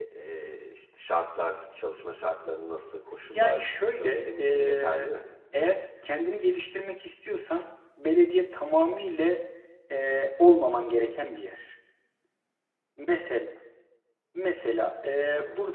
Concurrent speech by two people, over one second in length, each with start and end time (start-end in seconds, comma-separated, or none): 3.3-5.1